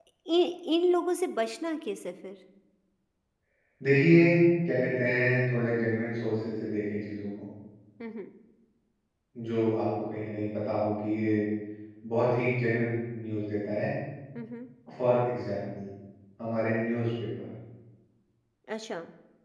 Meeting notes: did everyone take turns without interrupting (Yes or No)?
Yes